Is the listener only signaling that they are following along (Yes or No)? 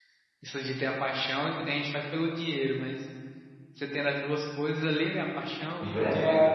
No